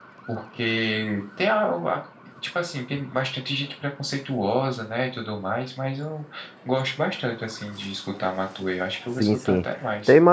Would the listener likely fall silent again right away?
No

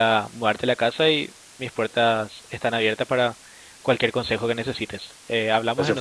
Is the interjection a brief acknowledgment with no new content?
No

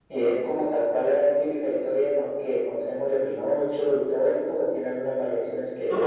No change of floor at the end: No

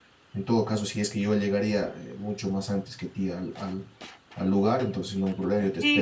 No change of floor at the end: No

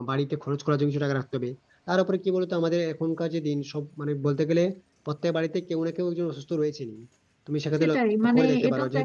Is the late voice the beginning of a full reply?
Yes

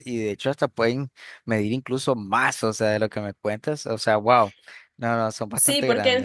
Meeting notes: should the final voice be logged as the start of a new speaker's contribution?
Yes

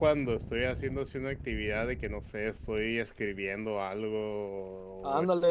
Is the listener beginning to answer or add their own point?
Yes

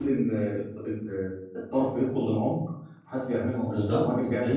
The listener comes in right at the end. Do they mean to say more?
Yes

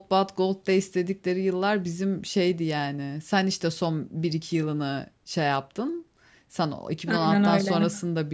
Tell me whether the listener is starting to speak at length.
No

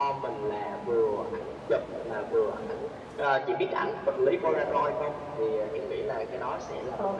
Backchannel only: No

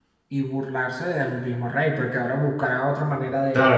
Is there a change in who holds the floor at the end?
Yes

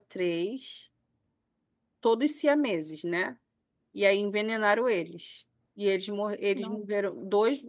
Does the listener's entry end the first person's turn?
No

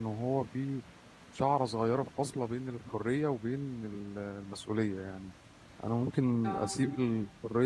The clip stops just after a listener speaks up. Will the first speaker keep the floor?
Yes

